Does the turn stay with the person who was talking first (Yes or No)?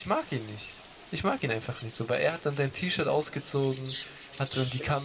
Yes